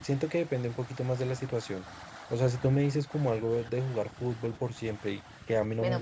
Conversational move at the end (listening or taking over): taking over